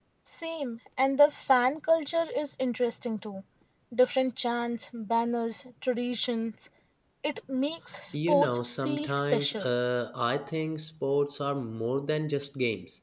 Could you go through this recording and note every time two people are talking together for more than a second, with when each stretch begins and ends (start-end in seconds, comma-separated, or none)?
8.1-9.7